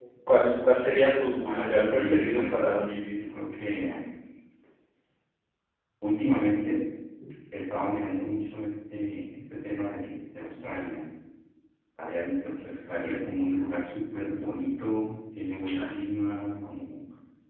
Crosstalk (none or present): present